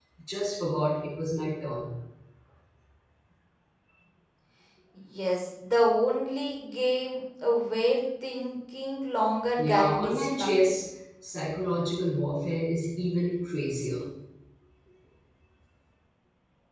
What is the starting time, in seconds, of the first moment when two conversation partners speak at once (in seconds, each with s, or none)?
9.6 s